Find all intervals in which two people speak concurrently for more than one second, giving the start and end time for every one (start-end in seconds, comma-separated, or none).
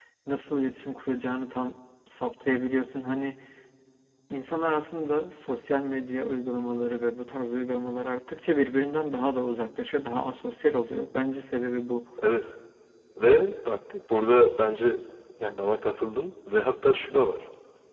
none